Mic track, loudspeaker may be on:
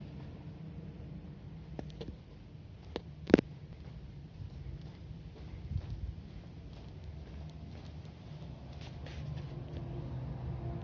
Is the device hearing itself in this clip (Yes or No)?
No